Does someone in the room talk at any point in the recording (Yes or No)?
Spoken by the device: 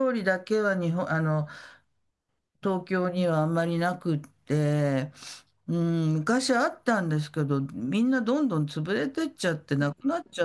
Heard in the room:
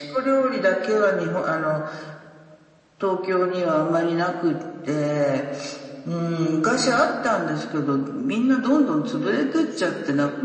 Yes